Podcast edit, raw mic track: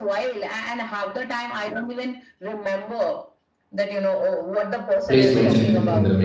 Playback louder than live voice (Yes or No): No